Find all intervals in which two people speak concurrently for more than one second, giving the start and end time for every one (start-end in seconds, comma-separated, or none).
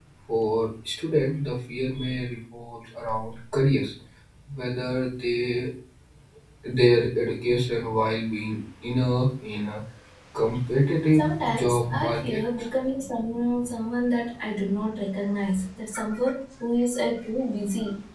11.1-12.4